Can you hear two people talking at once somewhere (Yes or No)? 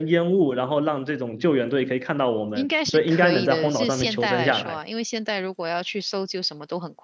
Yes